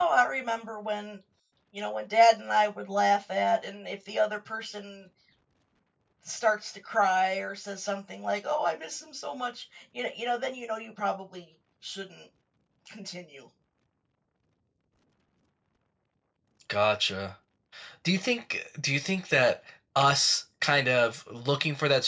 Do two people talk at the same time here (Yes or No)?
No